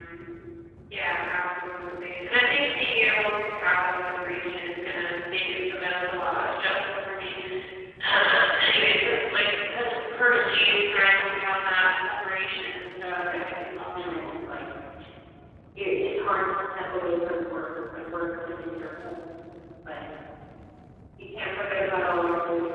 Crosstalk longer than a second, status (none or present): none